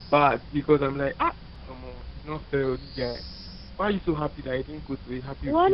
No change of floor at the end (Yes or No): No